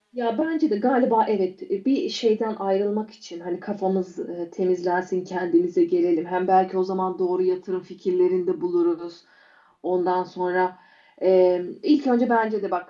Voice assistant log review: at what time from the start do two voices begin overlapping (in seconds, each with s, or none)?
none